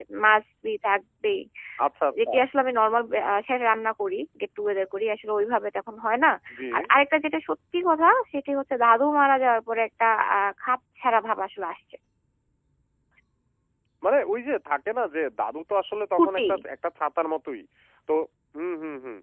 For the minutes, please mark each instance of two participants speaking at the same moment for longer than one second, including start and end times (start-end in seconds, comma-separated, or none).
none